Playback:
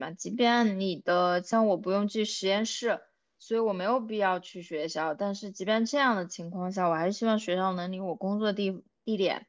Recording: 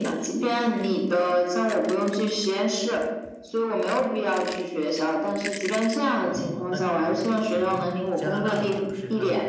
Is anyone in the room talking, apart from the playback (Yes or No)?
Yes